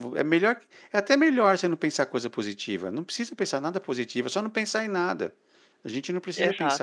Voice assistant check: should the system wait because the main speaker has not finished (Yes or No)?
Yes